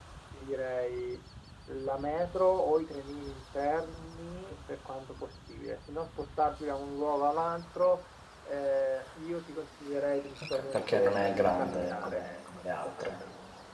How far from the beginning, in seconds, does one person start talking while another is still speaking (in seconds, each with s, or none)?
10.5 s